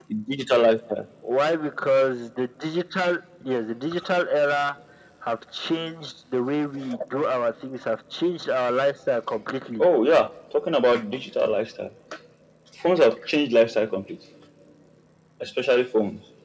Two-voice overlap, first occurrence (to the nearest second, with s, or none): none